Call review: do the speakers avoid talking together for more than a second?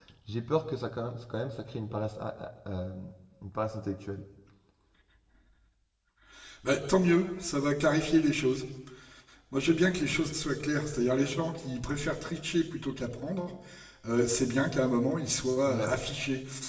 Yes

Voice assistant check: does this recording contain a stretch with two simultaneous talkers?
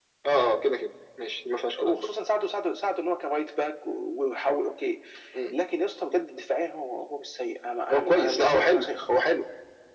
Yes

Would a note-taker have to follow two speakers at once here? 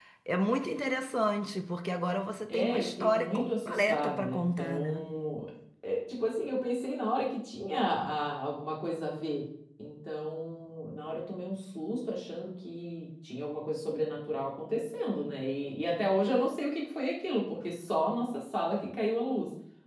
Yes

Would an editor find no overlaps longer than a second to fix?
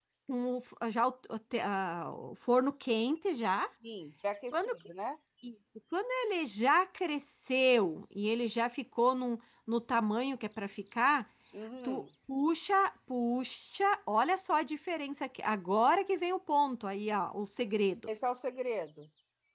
Yes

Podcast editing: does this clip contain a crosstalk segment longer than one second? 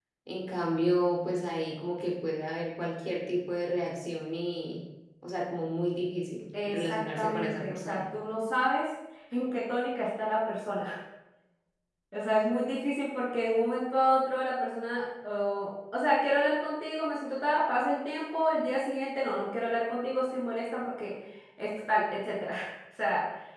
Yes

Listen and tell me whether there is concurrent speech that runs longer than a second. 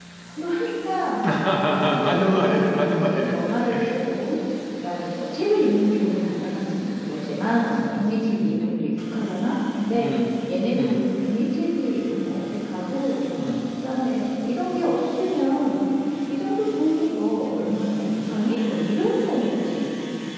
Yes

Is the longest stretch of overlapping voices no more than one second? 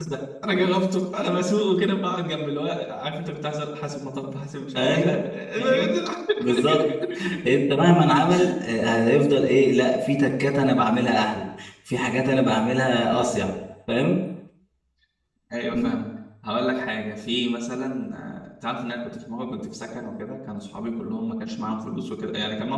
Yes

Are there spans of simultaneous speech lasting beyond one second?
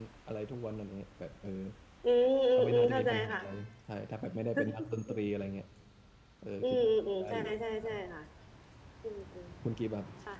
Yes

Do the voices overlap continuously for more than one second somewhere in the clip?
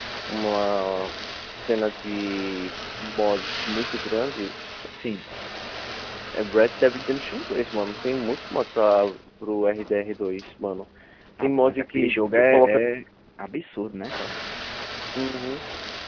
Yes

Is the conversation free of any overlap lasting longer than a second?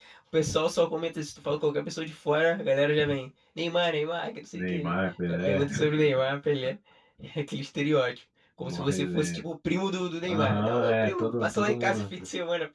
No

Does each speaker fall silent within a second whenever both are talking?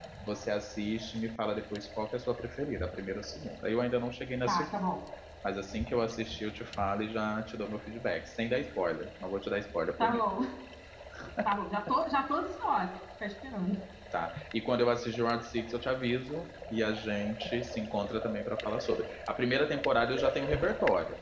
Yes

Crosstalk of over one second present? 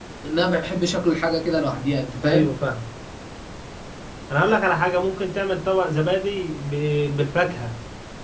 No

